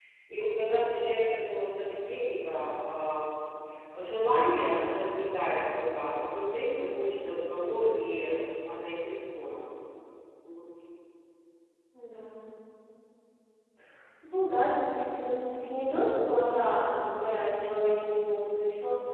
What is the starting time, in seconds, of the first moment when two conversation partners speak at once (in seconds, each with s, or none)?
none